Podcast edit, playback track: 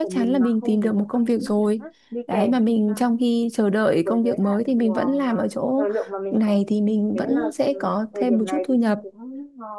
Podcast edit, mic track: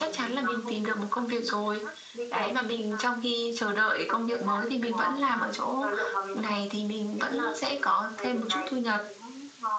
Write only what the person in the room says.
none

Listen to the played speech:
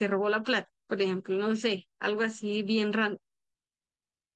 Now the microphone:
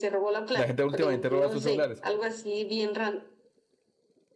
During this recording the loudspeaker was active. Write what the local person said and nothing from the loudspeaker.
La gente últimamente roba sus celulares.

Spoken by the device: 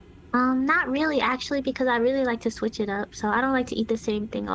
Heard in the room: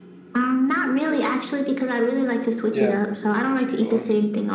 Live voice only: Yeah, something to get you going.

